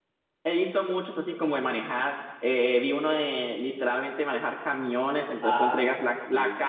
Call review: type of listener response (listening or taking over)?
listening